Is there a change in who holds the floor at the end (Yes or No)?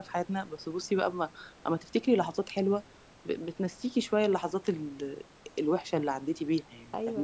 Yes